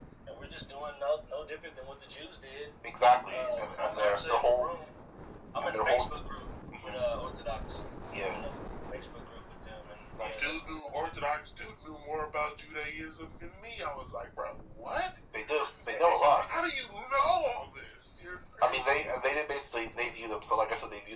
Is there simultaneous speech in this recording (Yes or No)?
Yes